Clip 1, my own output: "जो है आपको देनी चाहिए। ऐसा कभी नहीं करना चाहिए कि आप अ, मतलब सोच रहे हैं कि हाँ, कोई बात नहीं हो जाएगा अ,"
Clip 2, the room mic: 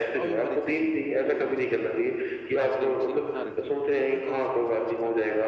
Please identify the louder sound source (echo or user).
echo